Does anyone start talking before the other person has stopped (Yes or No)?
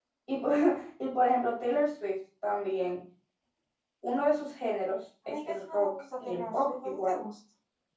Yes